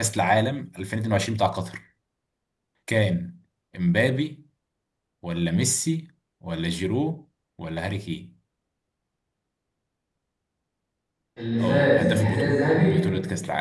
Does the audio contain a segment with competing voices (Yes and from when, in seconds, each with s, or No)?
Yes, from 11.6 s